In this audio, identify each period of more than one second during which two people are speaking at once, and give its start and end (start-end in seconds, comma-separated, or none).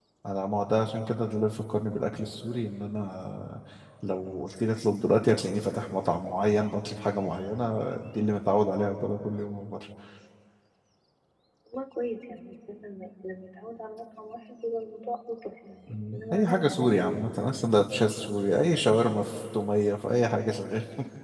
15.9-17.2